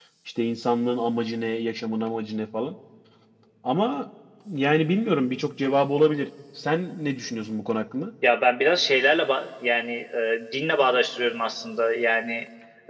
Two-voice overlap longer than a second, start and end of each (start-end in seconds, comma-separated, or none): none